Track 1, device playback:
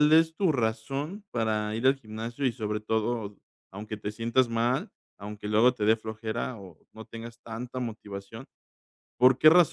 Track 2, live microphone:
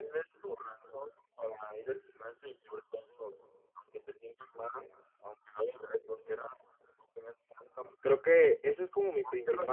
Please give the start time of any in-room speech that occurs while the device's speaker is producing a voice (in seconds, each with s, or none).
8.0 s